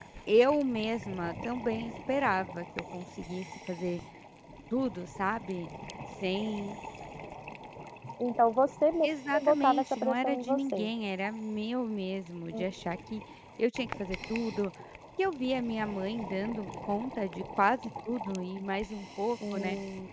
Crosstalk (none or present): present